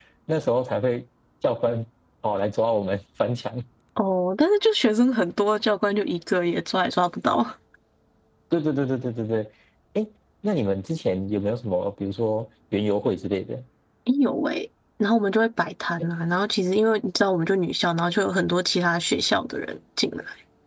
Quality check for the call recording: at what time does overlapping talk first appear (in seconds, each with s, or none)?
none